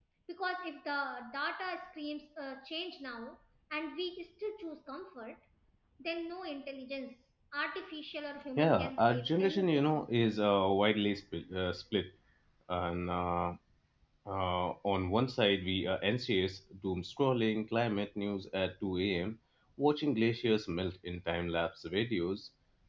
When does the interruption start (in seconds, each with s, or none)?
8.6 s